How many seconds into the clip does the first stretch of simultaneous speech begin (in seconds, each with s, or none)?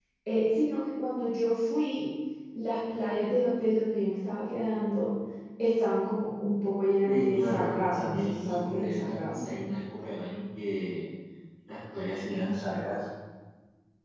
7.0 s